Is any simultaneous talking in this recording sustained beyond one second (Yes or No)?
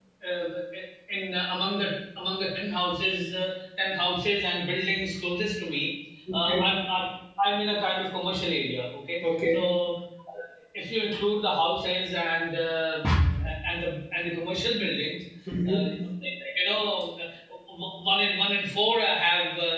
No